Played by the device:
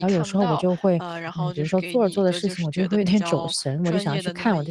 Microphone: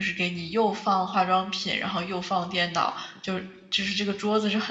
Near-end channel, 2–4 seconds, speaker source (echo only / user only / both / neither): user only